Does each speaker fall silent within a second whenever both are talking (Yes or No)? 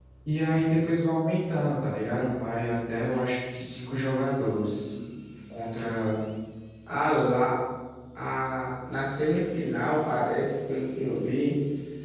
Yes